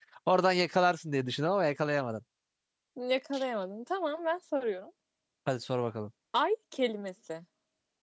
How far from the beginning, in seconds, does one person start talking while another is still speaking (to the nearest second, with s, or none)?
none